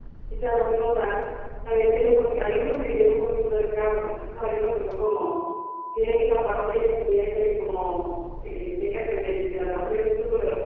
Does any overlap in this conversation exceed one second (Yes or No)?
No